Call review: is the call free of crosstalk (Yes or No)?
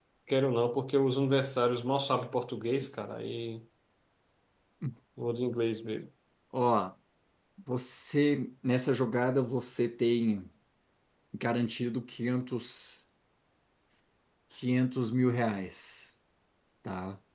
Yes